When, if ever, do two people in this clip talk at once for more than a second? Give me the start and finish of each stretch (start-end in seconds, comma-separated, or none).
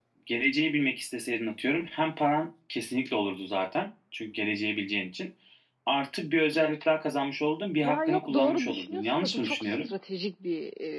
7.8-9.9